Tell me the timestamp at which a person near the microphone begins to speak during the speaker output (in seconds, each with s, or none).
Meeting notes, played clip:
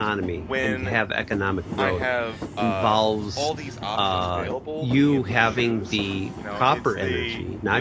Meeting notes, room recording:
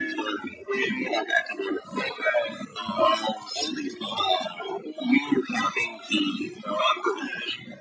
none